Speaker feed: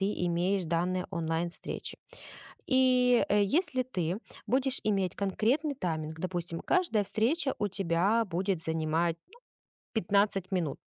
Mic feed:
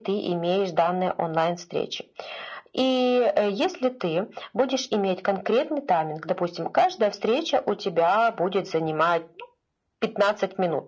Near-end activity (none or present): none